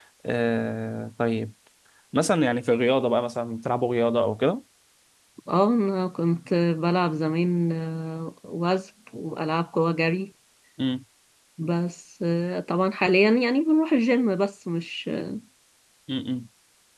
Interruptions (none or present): none